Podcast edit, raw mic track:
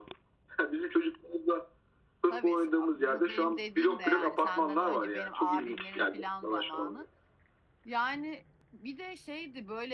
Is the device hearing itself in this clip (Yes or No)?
Yes